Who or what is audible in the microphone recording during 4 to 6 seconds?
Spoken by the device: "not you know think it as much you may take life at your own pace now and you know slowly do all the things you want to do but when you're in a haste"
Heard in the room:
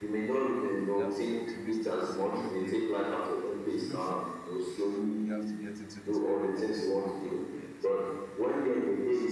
both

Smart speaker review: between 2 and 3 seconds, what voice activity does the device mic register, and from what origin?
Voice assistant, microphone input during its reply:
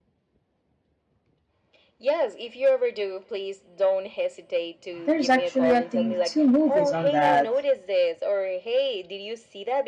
echo only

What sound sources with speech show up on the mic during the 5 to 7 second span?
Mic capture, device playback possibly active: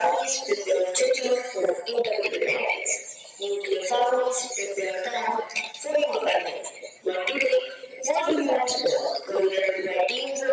echo only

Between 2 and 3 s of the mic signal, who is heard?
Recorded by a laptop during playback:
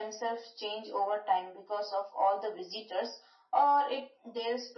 echo only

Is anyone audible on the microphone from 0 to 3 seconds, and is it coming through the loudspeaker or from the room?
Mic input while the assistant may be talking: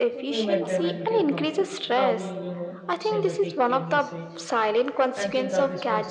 both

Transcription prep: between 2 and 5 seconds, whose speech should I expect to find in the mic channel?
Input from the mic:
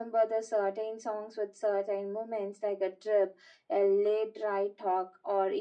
echo only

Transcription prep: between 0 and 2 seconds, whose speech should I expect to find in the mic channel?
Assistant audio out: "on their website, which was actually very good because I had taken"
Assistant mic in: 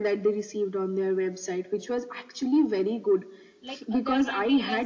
echo only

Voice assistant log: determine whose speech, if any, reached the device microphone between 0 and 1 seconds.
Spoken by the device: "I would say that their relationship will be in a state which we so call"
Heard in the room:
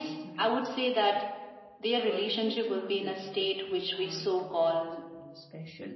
both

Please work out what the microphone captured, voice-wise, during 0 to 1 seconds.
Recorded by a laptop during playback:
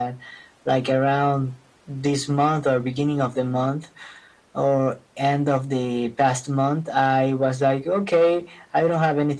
echo only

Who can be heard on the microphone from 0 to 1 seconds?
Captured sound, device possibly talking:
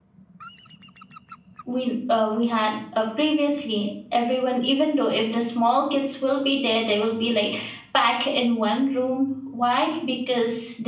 neither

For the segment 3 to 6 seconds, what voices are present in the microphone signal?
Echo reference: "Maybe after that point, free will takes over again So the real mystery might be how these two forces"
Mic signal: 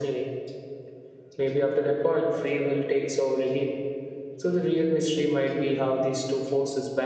echo only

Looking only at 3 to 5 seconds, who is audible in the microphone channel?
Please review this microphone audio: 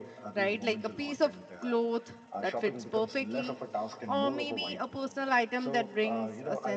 both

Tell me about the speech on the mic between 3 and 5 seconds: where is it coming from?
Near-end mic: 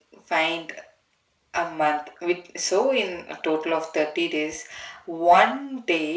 echo only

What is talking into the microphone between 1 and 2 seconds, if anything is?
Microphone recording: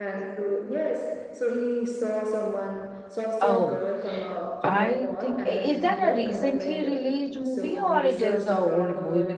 echo only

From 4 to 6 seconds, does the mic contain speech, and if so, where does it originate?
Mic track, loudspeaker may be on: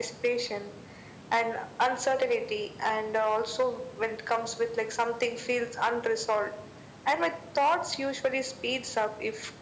echo only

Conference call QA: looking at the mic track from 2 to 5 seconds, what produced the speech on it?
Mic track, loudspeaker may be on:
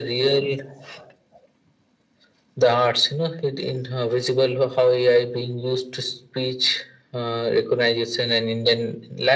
echo only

